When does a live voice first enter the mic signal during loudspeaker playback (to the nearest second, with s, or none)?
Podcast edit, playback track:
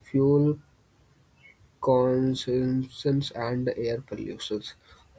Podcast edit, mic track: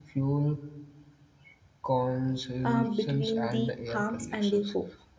3 s